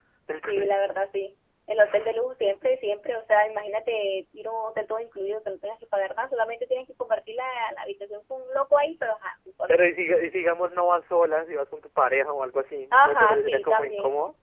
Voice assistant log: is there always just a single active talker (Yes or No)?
No